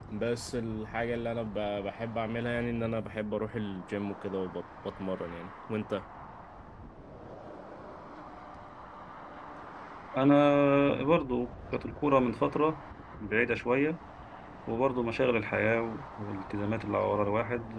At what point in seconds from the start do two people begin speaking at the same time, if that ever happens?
none

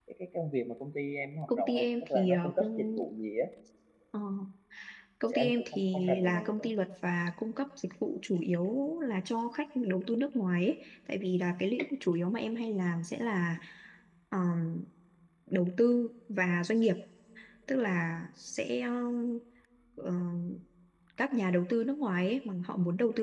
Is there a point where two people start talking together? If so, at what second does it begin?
1.6 s

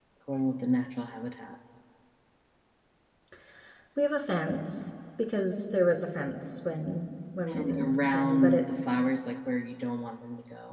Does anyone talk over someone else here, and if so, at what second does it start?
7.5 s

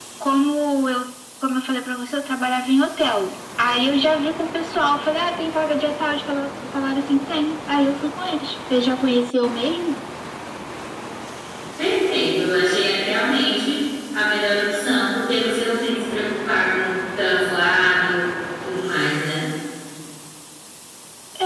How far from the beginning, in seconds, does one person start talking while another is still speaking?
none

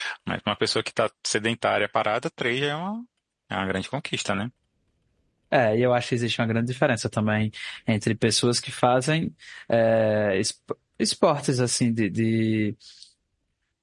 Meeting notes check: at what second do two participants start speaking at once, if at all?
none

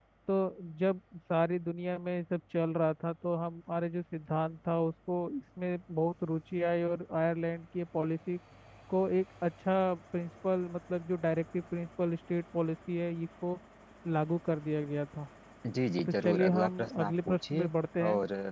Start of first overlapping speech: 16.2 s

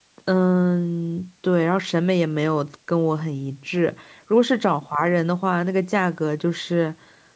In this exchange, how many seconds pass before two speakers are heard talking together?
none

